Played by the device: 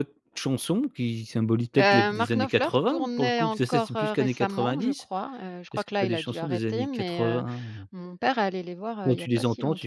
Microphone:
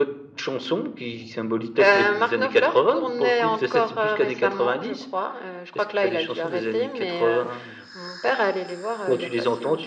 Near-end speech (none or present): none